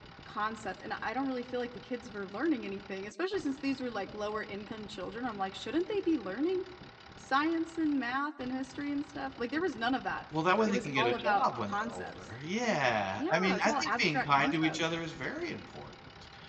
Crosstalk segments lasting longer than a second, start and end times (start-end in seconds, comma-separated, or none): 10.7-12.1, 13.2-14.8